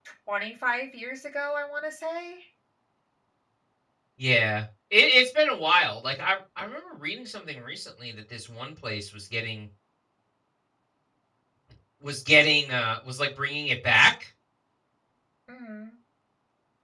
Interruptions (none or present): none